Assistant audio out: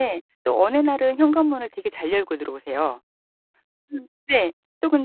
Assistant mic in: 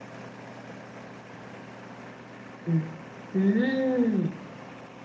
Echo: none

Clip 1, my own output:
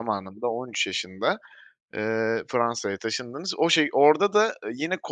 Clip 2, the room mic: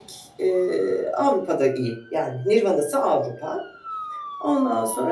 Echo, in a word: none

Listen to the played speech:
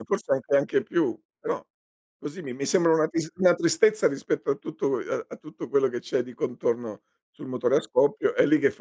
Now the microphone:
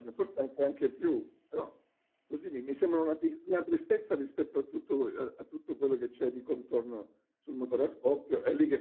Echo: present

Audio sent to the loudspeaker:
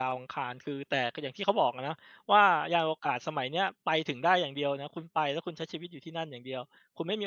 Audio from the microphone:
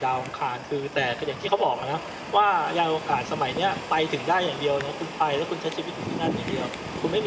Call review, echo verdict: present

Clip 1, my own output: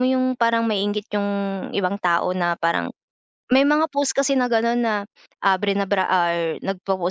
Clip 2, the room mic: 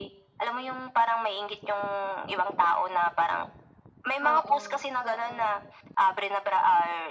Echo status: present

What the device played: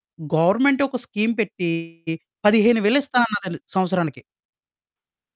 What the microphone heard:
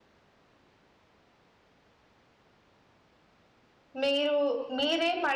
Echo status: none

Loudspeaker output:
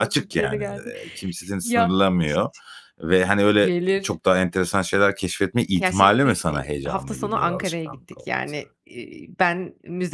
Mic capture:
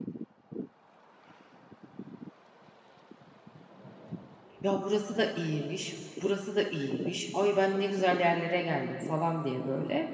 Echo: none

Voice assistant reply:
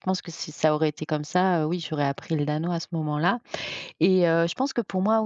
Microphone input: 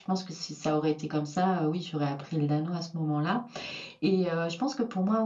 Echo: present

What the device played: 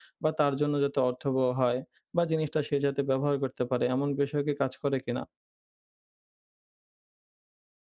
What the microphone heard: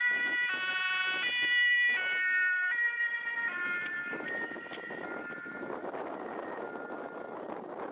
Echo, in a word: none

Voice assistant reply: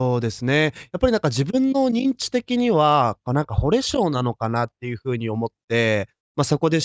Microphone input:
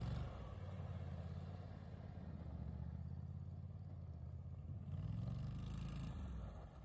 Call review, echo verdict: none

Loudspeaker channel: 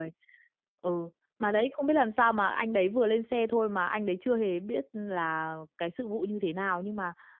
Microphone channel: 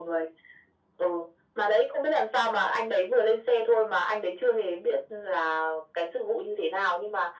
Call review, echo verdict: present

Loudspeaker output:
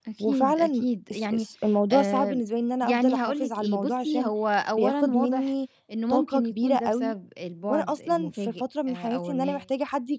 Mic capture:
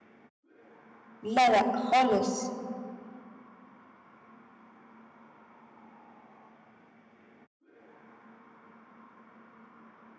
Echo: none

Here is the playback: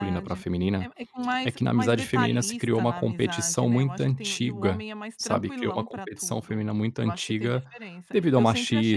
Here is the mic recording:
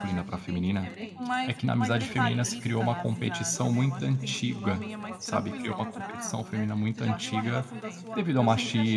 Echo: present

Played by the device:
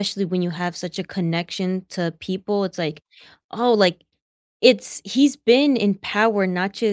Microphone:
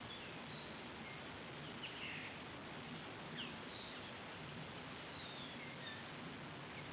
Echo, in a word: none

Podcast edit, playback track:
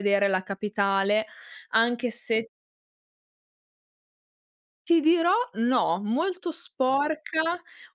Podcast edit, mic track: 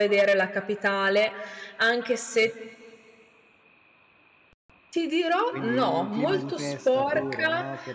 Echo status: present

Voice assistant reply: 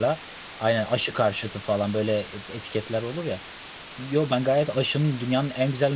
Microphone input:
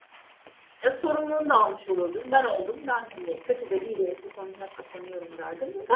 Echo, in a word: none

